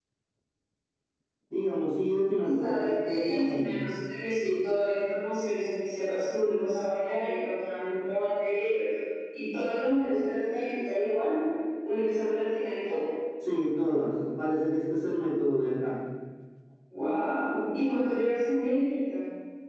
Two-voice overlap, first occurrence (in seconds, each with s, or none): 2.4 s